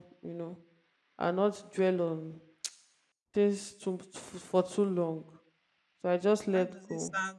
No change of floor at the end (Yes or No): No